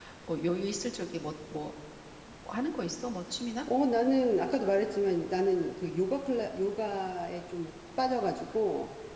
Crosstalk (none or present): none